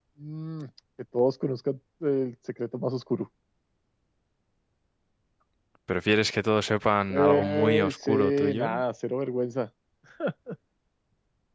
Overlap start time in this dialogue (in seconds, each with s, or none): 7.1 s